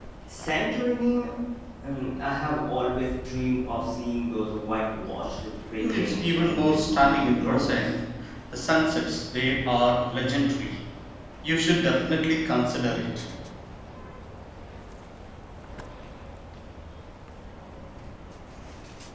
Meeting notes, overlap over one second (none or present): present